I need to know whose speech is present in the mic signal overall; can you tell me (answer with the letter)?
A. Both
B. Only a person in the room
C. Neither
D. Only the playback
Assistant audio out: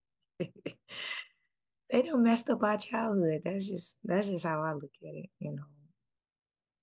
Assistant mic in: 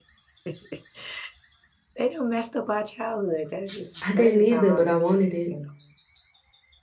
A